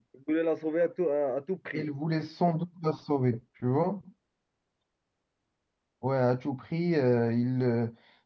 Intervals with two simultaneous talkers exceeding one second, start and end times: none

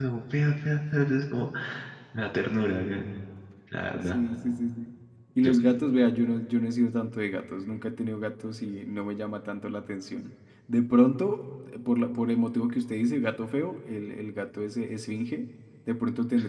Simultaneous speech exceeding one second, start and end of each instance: none

